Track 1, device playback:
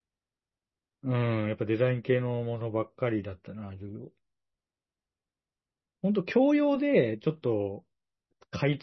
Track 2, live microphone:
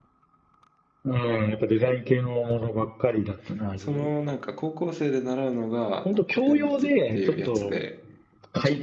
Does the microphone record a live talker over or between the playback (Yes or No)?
Yes